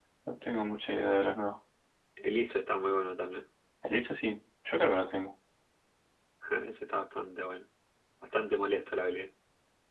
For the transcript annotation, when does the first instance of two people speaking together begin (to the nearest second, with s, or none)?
none